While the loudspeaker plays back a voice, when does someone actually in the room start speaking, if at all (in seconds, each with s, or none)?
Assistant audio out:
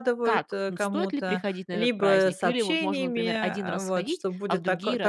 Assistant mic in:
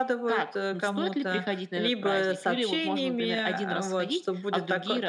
none